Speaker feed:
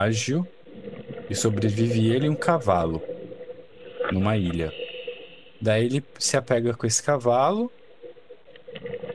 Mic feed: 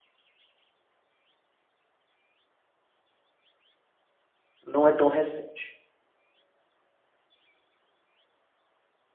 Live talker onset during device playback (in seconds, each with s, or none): 4.6 s